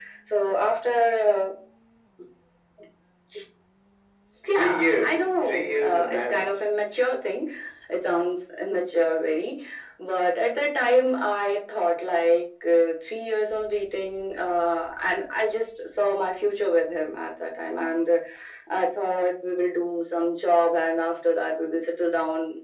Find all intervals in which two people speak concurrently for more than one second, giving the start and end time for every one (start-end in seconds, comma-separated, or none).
4.5-6.7